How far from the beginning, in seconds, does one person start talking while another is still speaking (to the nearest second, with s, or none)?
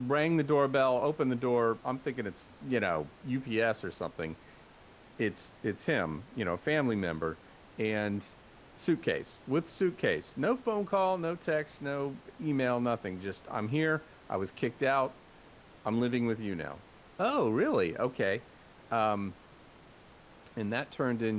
none